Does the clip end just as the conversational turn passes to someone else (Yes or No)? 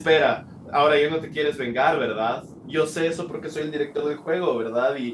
No